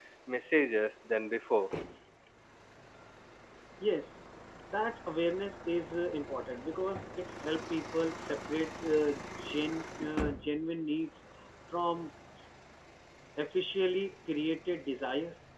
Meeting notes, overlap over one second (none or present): none